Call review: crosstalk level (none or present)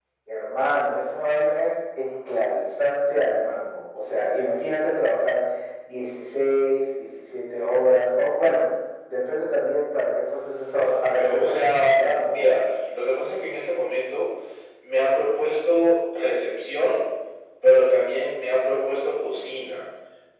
present